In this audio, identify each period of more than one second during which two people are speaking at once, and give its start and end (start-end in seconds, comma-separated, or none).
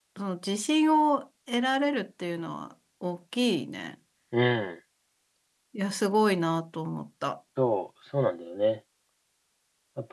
none